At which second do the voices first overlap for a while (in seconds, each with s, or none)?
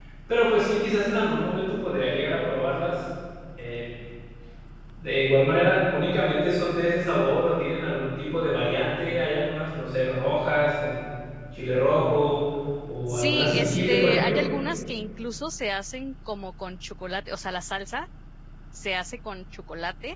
13.1 s